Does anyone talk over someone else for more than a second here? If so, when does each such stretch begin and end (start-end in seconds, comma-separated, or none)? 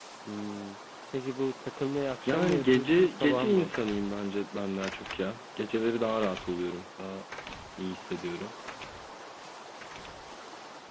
2.3-3.7